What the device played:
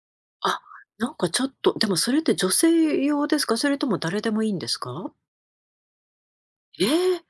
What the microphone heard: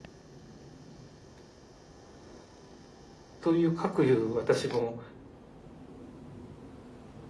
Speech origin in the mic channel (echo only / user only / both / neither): user only